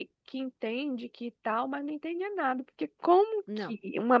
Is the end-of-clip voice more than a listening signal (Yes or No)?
No